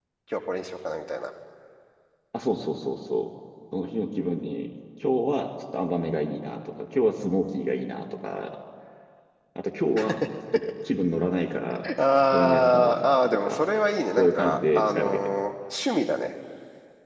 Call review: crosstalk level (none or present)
present